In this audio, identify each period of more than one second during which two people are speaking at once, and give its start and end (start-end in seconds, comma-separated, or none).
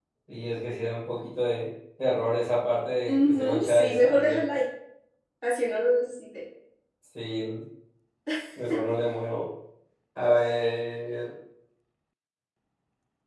3.1-4.4